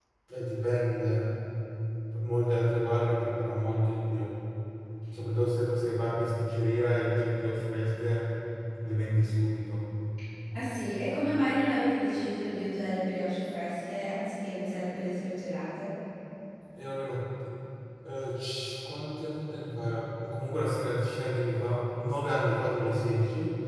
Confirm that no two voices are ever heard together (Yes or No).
Yes